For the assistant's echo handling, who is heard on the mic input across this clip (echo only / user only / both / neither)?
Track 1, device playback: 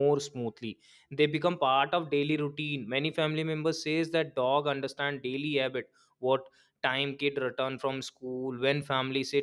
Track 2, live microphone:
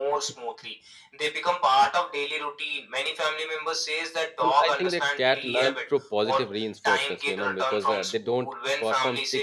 both